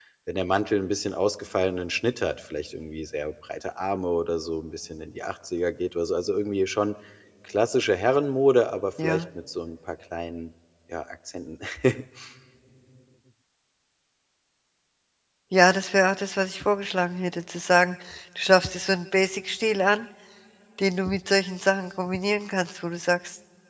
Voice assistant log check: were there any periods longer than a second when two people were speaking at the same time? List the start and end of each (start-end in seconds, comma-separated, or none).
none